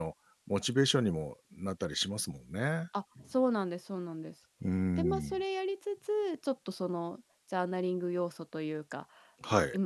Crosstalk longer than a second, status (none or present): none